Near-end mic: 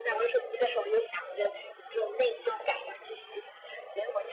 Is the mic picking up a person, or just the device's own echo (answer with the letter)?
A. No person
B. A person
A